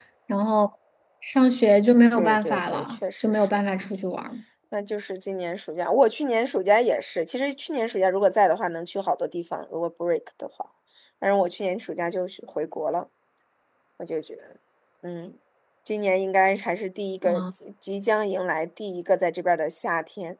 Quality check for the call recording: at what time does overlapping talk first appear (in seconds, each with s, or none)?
2.1 s